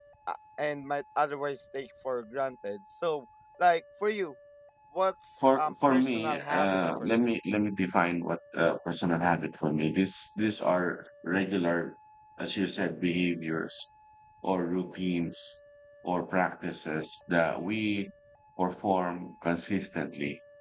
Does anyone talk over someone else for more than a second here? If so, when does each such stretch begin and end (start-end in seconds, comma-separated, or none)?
5.6-7.2